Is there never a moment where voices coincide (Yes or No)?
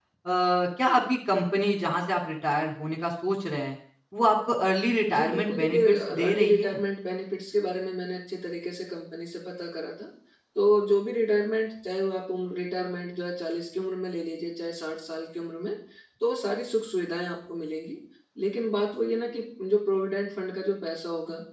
No